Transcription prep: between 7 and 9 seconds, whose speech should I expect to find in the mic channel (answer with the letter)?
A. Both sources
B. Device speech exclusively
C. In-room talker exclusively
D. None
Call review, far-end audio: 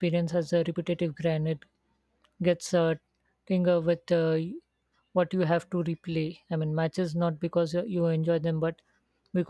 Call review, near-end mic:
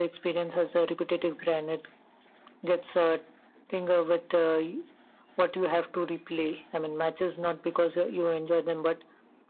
B